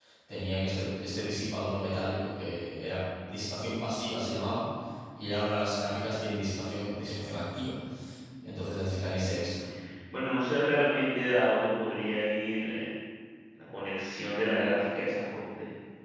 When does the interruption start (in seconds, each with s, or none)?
none